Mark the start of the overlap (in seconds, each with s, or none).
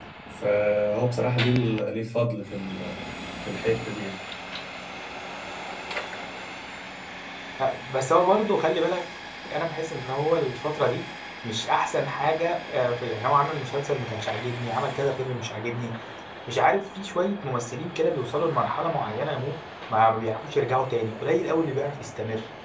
none